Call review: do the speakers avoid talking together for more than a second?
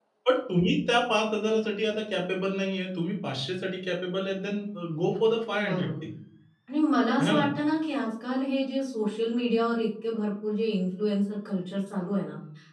Yes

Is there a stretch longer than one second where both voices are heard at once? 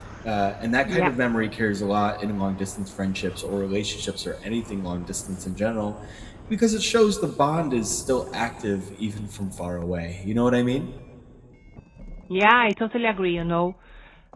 No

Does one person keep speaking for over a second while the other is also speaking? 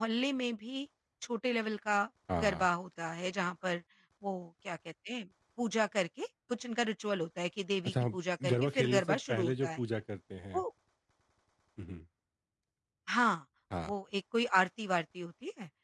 Yes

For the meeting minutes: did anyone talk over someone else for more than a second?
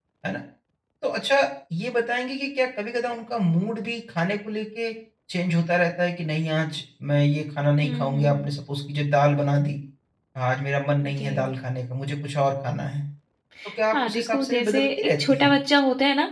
Yes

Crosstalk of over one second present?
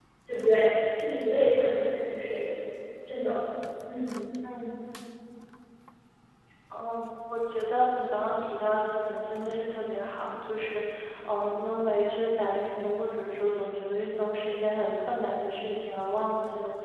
No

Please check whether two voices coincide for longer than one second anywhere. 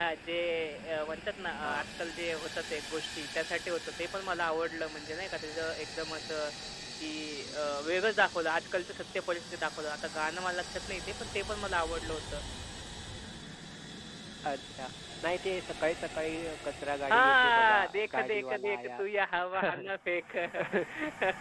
Yes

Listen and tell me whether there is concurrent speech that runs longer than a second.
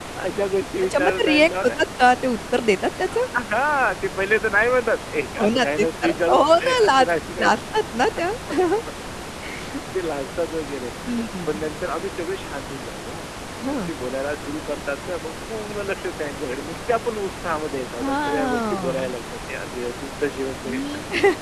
Yes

